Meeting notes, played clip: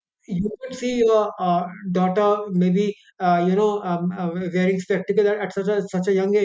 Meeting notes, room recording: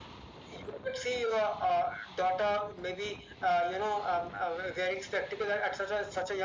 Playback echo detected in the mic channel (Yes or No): Yes